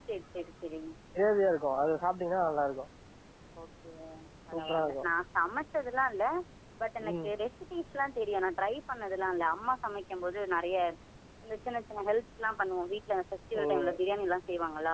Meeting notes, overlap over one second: none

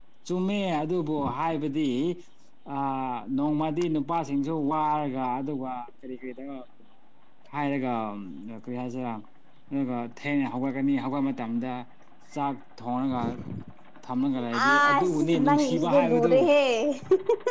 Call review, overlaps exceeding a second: present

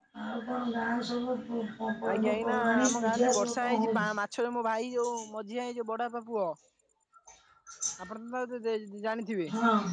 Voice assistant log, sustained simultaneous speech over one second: present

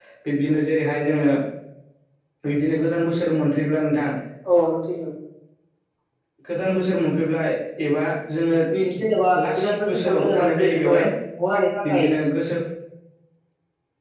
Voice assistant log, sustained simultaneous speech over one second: present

